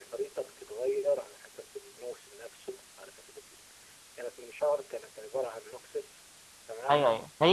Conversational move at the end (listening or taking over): taking over